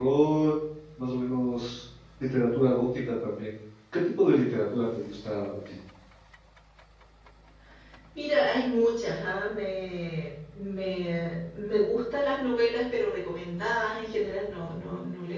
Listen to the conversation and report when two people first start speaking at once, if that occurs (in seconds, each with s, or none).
none